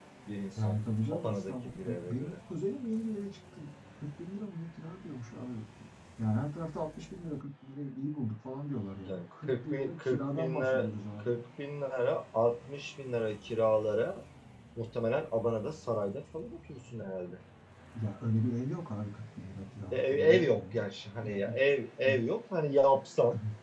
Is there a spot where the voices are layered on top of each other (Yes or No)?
Yes